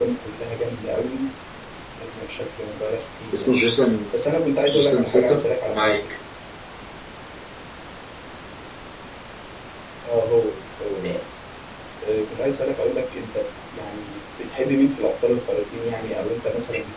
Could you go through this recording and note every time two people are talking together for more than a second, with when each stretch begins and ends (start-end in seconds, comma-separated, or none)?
4.7-6.0